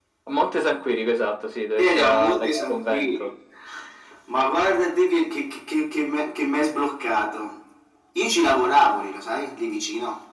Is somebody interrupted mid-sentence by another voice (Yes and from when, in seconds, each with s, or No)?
Yes, from 1.8 s